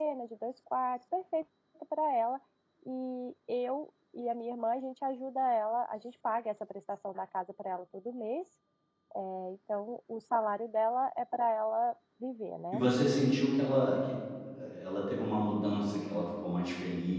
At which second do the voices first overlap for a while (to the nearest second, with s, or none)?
none